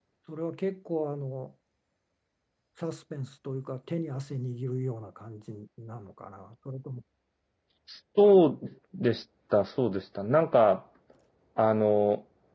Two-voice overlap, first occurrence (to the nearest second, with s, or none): none